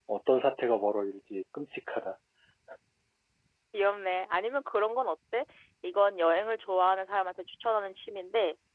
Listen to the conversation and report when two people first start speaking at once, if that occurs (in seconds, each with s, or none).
none